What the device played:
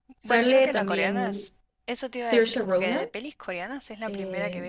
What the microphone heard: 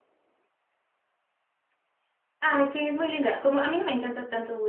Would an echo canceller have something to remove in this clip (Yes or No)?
No